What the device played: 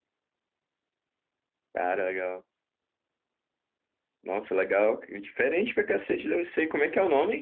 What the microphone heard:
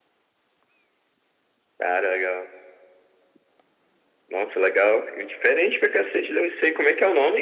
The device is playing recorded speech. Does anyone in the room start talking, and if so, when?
none

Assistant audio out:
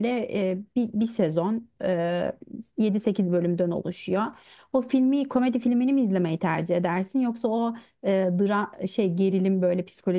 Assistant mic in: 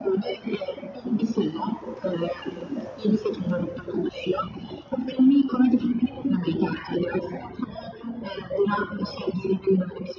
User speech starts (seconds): none

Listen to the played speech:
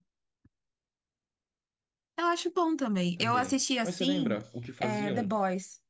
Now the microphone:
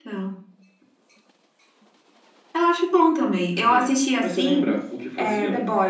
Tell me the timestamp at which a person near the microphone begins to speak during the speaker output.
none

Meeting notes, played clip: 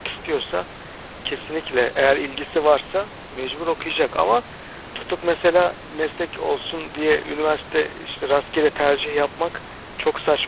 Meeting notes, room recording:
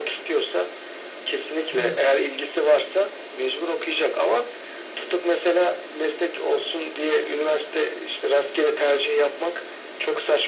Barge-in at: 1.8 s

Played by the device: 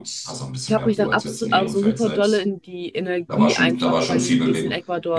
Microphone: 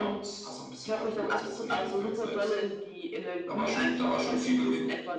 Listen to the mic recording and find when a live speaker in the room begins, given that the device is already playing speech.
none

